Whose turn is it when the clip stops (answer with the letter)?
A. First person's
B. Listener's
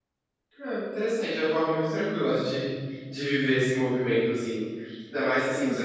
A